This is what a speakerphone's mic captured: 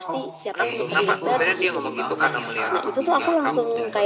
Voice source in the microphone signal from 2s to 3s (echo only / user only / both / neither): both